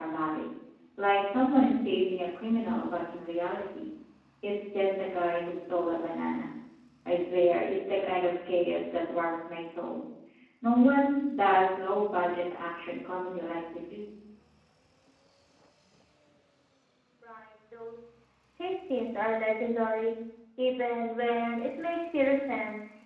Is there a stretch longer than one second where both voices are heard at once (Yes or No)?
No